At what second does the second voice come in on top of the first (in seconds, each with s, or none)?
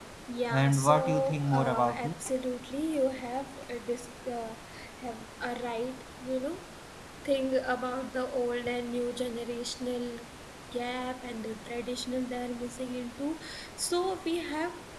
0.5 s